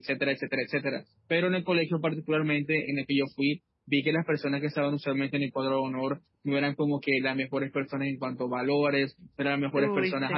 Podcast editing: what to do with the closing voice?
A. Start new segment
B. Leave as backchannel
B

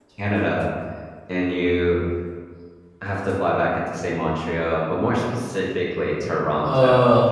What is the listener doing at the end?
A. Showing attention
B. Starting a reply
A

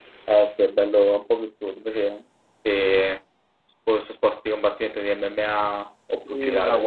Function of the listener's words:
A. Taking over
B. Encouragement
A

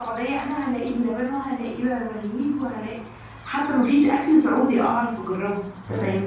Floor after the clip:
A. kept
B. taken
B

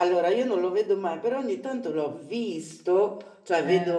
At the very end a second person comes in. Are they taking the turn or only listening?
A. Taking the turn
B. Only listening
B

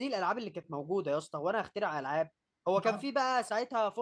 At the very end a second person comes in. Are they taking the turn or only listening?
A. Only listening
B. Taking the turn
A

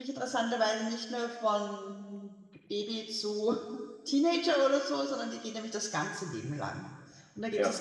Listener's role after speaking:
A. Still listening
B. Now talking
A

